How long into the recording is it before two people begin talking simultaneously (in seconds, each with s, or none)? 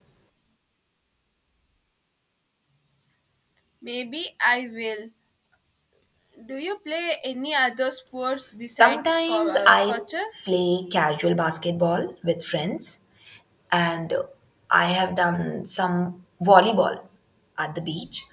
8.7 s